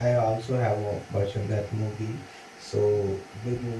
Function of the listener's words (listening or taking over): listening